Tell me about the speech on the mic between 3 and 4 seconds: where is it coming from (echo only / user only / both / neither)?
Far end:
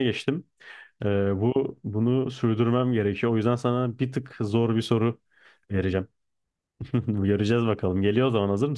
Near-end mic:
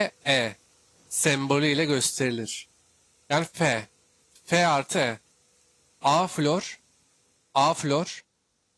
user only